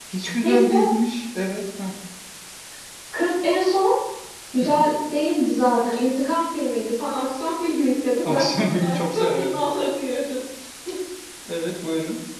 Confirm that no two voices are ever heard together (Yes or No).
No